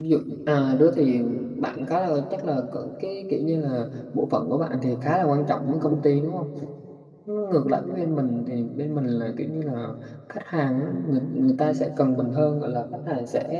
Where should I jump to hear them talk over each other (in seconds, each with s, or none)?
none